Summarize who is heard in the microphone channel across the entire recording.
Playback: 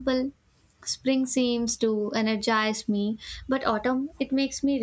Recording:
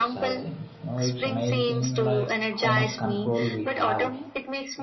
both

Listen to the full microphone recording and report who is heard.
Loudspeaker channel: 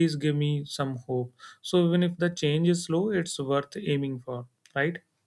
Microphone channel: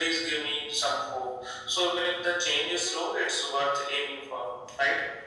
echo only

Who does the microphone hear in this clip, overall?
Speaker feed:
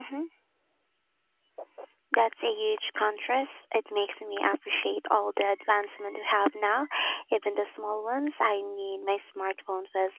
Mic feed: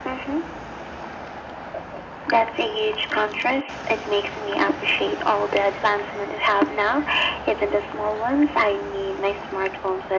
echo only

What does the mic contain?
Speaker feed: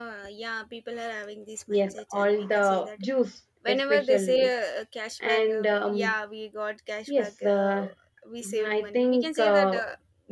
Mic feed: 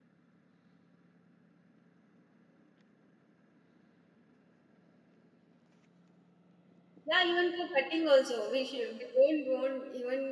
user only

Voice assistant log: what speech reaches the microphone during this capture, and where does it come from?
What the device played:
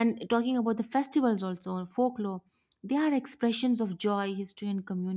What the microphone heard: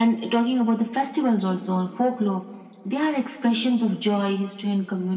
echo only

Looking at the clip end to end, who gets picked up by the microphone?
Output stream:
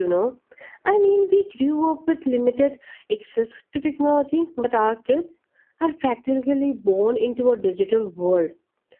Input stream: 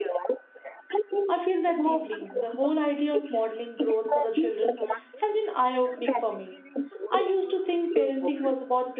both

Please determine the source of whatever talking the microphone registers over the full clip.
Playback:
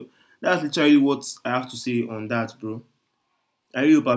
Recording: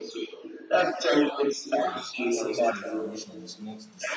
both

